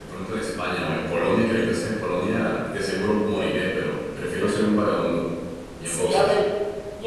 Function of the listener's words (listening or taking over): taking over